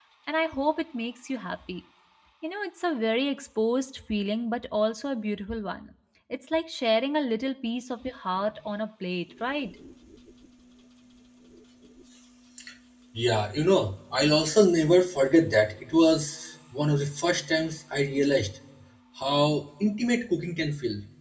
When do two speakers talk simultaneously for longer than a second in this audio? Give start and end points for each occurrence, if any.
none

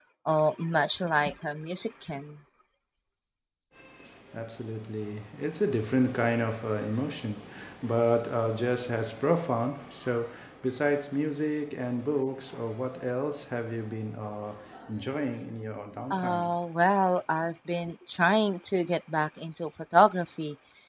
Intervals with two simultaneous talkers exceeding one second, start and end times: none

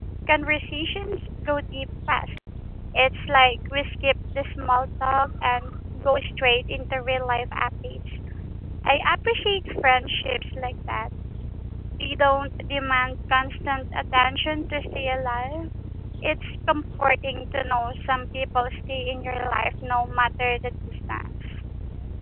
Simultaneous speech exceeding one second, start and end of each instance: none

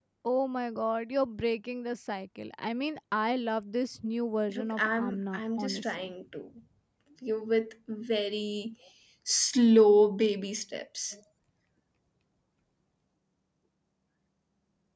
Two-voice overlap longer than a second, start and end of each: 4.5-6.1

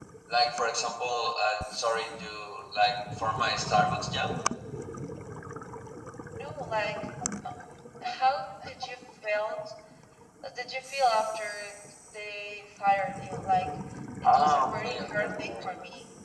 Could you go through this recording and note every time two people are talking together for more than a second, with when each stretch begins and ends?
14.2-15.7

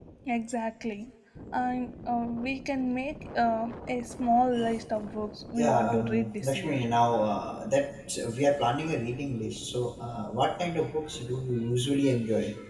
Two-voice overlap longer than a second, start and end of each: 5.6-6.8

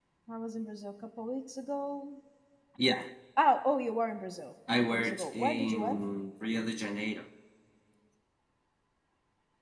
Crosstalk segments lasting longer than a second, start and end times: 4.8-6.0

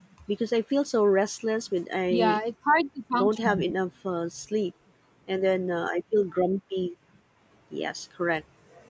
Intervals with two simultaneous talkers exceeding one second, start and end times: none

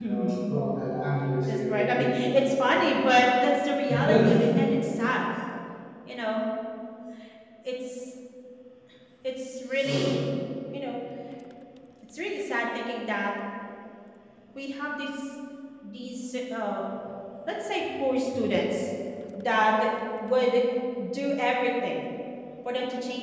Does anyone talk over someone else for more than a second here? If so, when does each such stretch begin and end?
1.7-2.9

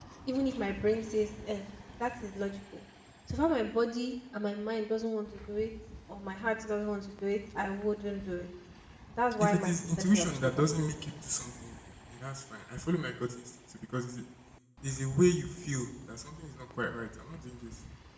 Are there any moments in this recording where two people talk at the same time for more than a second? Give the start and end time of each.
9.4-10.7

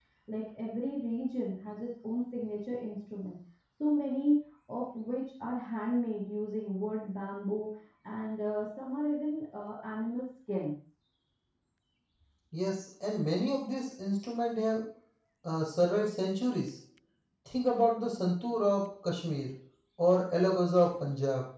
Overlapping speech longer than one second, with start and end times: none

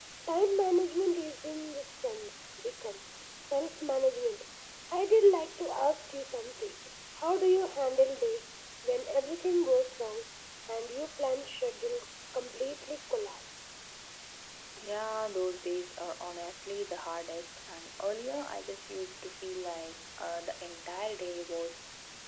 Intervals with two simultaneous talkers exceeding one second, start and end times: none

